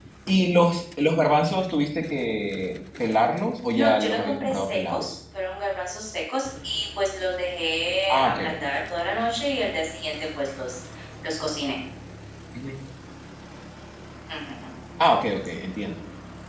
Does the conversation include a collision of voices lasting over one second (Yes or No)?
Yes